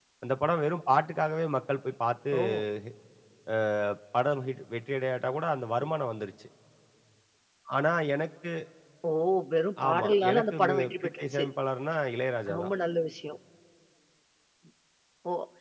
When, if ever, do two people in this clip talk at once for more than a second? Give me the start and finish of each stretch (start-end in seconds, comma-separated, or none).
9.9-11.4